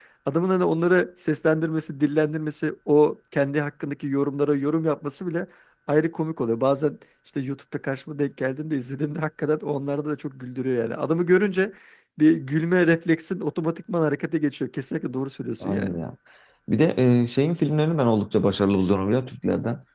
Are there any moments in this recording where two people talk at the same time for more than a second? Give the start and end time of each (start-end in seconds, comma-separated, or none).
none